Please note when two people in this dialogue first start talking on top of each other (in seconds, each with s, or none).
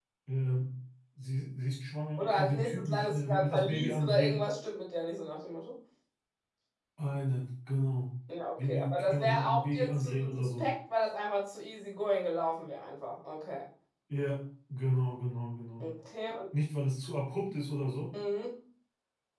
2.2 s